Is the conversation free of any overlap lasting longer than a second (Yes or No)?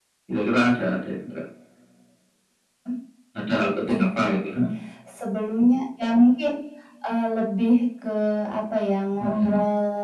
Yes